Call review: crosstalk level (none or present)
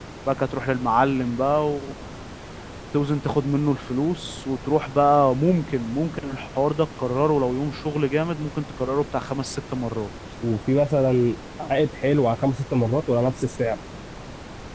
none